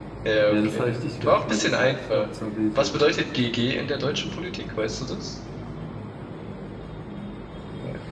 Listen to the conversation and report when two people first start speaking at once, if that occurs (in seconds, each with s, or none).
0.5 s